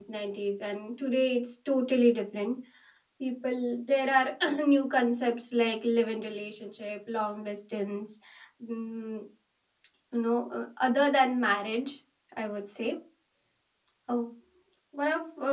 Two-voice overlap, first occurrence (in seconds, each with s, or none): none